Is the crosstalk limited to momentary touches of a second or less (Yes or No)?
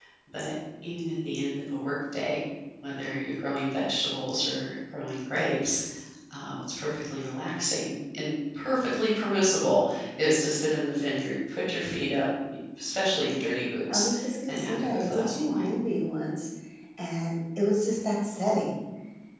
No